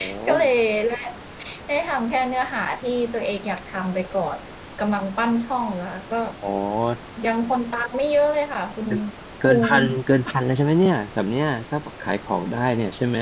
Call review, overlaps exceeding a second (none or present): none